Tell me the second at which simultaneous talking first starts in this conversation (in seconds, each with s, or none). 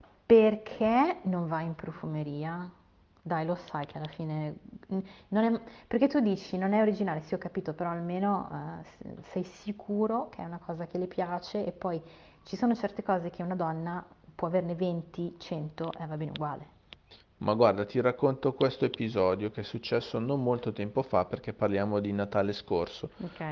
none